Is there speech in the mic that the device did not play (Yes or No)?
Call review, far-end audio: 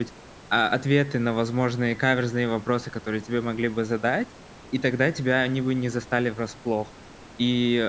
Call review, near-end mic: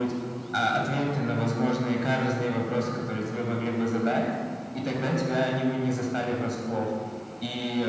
No